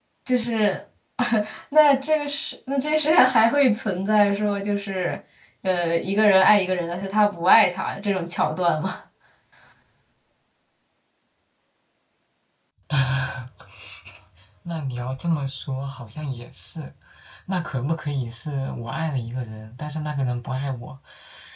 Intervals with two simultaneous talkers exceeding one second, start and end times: none

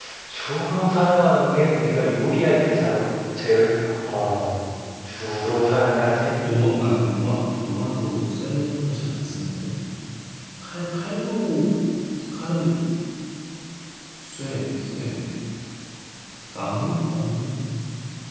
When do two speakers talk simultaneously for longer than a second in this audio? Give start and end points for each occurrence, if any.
none

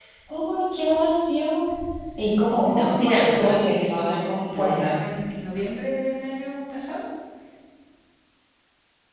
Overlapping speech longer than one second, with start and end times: 2.6-5.0

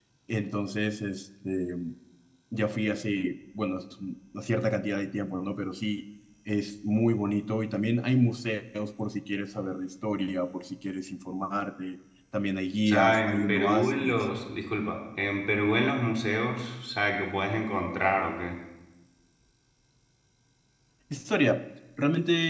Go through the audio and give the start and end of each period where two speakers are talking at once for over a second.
12.9-14.2

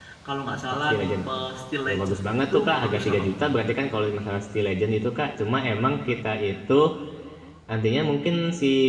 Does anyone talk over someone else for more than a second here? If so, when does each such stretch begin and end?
1.9-3.3

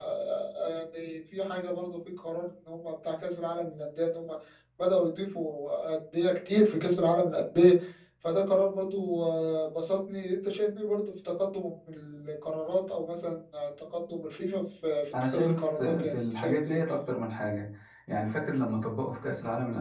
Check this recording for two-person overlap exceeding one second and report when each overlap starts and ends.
15.2-16.8

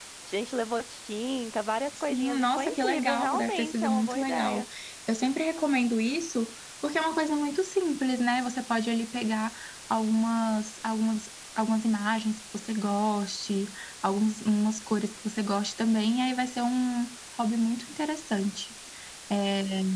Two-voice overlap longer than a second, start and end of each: 2.1-4.7

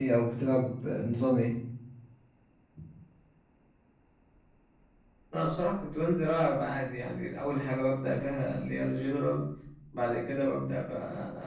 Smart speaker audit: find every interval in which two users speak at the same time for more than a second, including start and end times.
none

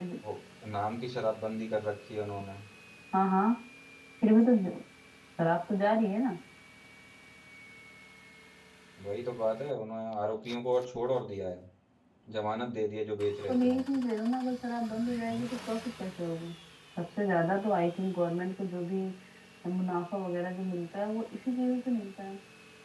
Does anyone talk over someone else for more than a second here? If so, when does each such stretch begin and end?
none

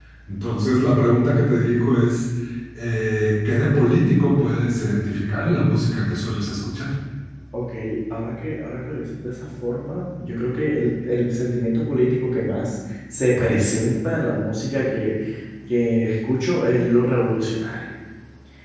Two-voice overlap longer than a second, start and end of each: none

